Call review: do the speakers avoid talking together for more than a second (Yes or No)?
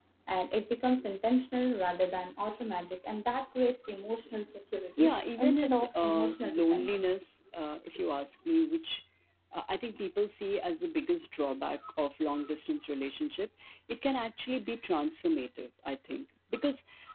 No